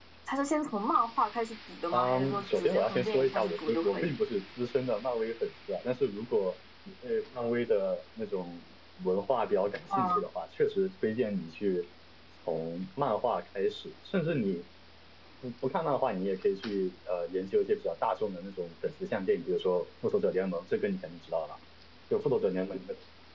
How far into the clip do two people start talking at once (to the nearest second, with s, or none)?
2 s